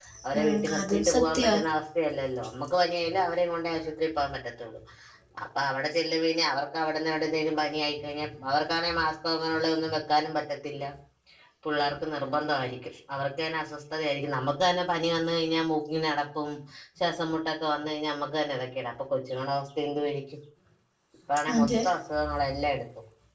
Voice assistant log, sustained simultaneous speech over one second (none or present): present